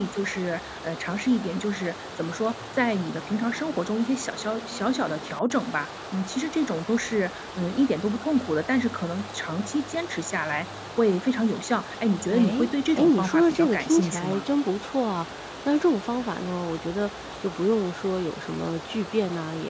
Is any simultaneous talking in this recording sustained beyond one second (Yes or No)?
Yes